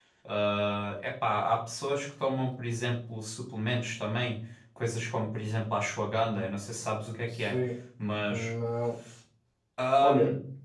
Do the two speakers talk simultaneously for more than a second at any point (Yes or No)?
No